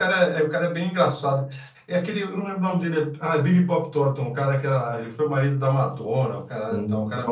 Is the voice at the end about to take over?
Yes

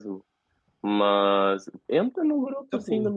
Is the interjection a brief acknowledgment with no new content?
Yes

